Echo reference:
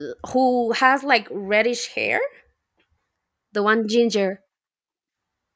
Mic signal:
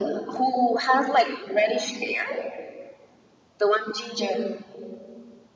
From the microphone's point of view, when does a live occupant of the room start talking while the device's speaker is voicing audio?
none

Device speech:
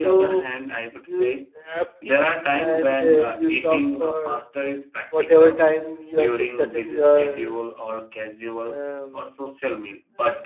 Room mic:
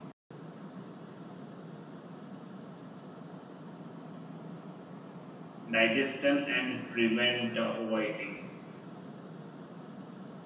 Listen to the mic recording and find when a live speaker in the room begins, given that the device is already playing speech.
5.7 s

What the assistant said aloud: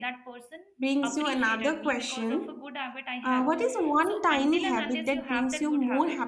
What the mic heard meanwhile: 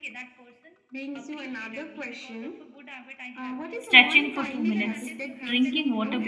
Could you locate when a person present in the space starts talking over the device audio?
3.8 s

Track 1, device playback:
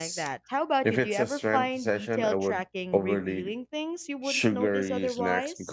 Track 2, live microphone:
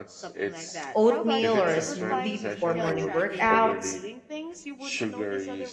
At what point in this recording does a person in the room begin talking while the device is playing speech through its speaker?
0.9 s

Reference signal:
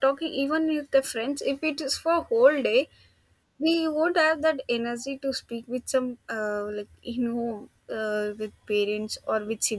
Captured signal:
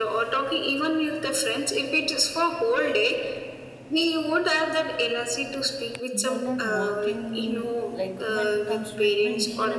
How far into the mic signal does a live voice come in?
6.1 s

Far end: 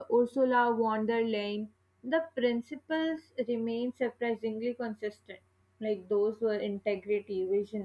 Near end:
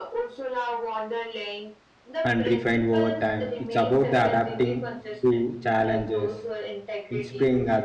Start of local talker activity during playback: 2.2 s

